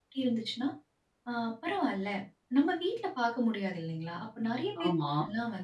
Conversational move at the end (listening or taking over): listening